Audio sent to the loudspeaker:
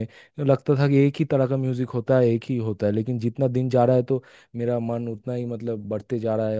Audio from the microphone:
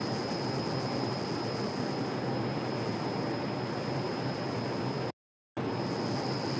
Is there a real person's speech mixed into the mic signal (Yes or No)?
No